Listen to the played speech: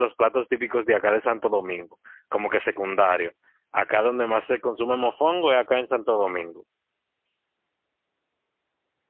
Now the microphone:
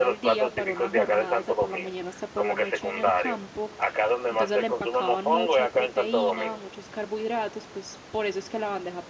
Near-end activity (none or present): present